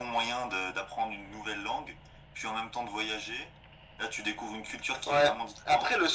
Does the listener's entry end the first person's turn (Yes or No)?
Yes